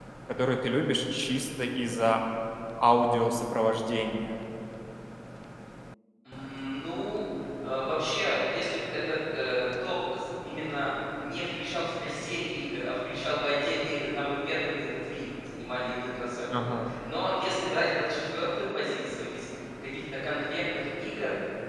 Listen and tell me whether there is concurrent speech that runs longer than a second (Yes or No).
No